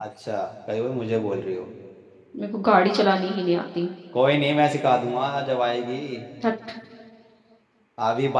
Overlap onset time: none

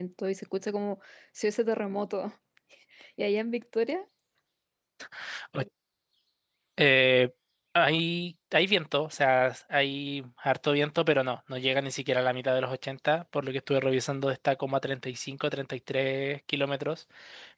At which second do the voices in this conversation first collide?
none

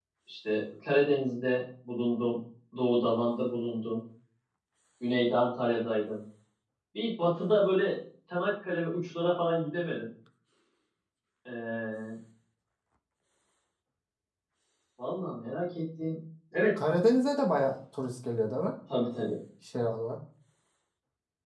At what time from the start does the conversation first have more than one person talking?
none

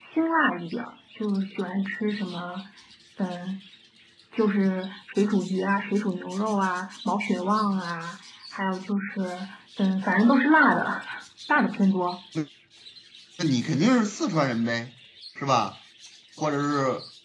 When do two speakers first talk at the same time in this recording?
none

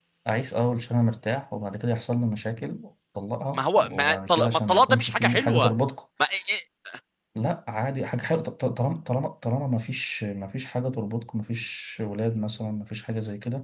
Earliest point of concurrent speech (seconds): 4 s

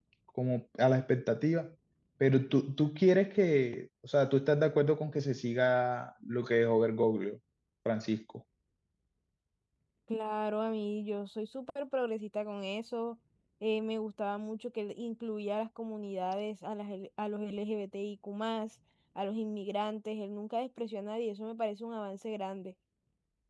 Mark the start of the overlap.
none

